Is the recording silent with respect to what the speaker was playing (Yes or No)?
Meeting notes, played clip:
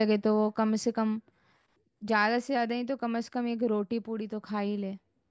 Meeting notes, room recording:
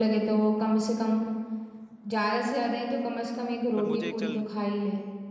No